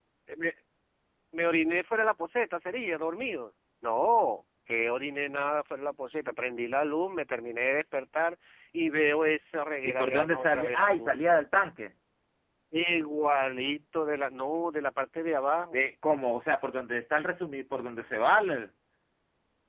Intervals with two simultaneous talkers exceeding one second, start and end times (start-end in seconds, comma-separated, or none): 9.8-11.2